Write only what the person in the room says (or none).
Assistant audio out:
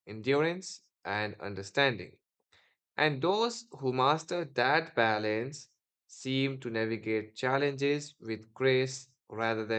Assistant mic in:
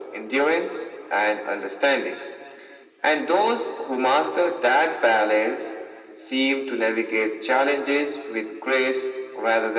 none